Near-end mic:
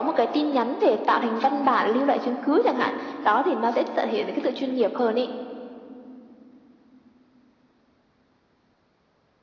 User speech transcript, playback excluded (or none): none